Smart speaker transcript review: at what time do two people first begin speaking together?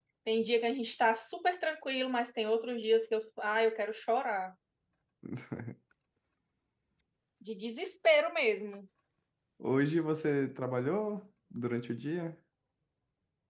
none

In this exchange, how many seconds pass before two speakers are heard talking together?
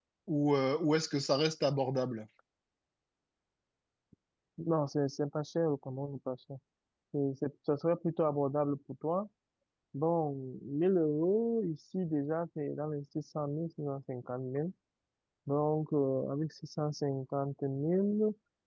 none

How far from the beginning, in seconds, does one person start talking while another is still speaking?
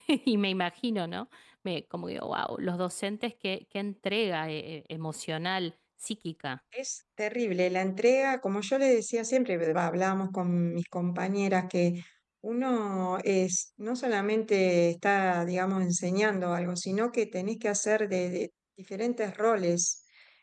none

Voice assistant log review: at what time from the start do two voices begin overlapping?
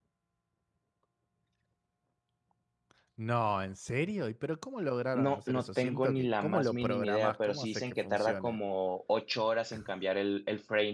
5.1 s

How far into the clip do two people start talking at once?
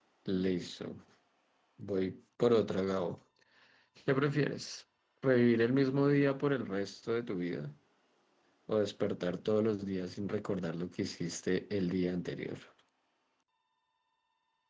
none

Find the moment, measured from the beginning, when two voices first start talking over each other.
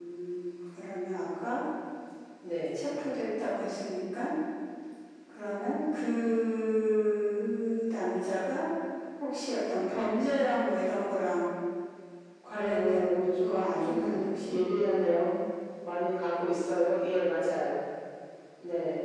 12.6 s

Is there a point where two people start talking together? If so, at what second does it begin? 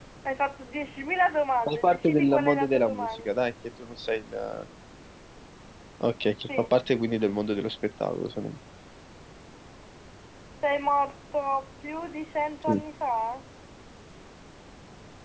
1.7 s

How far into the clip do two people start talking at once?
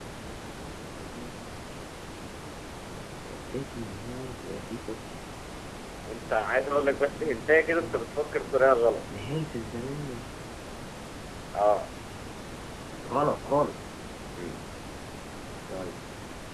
6.6 s

